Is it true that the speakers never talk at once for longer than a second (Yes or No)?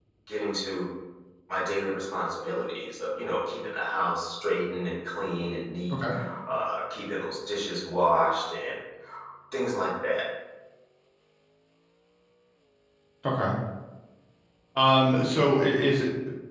Yes